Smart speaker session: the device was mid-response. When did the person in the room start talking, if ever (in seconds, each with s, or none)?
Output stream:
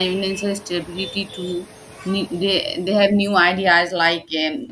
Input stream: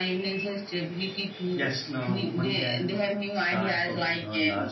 1.5 s